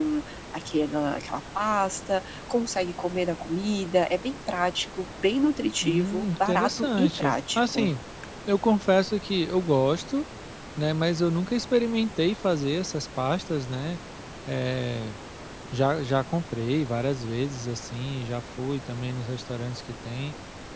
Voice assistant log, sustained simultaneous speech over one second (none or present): present